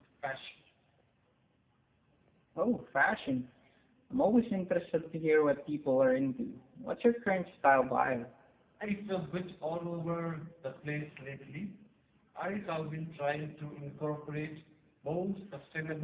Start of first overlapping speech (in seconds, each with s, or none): none